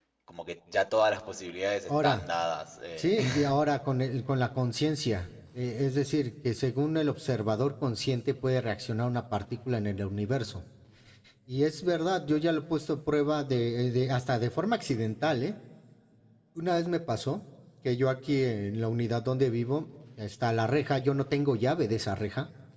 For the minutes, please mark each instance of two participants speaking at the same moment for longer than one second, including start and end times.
none

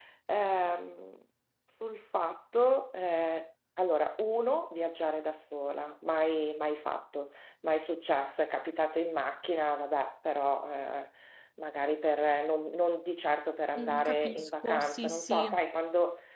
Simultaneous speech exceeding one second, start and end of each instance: 13.8-15.6

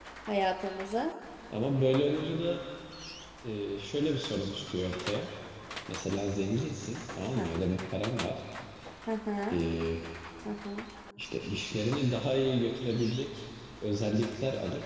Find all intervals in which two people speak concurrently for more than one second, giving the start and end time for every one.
none

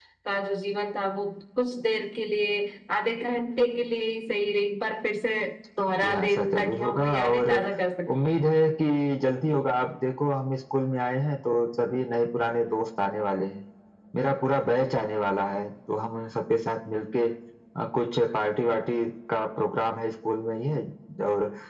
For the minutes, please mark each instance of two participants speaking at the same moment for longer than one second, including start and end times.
6.0-7.5

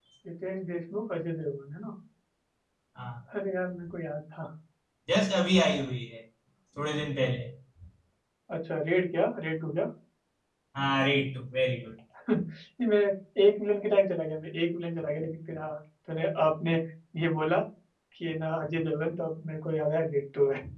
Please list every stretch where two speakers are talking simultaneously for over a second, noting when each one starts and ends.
none

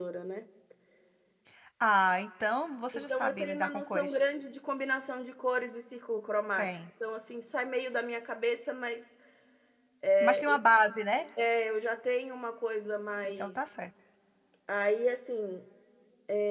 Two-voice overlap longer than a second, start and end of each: 3.0-4.2

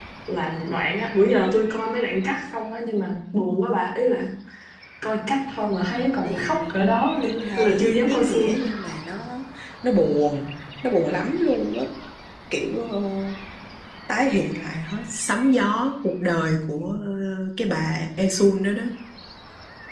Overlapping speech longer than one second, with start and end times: 7.2-8.6

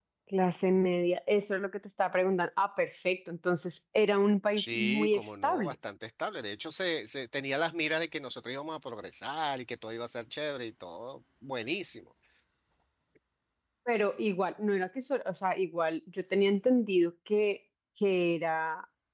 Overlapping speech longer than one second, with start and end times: 4.5-5.8

